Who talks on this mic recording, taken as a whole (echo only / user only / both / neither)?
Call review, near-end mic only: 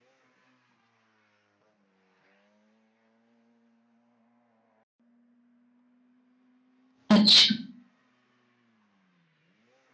user only